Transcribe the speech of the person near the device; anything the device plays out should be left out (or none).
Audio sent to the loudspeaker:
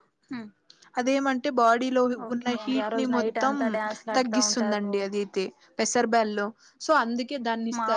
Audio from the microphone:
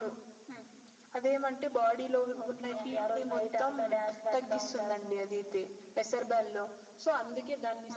none